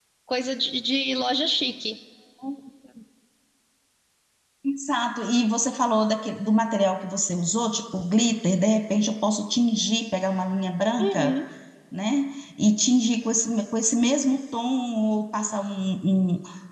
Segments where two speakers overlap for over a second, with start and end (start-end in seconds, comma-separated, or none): none